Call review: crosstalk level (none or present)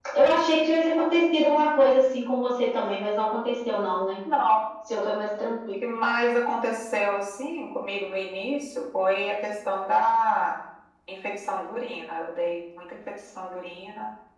none